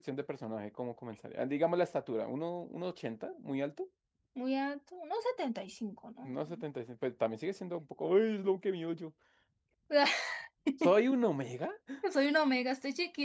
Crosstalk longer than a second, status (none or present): none